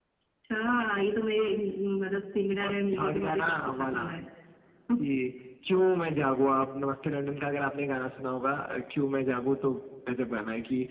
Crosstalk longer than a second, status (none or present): present